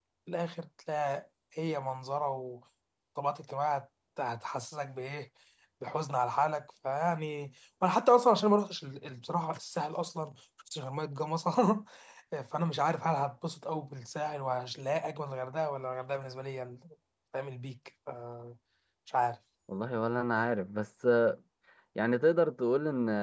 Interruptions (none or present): none